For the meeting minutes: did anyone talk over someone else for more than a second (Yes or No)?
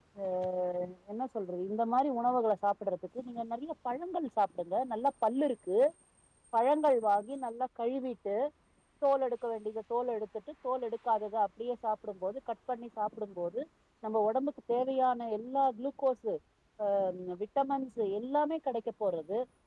No